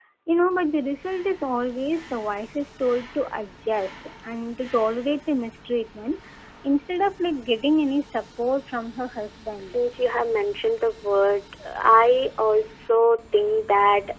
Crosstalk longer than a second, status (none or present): none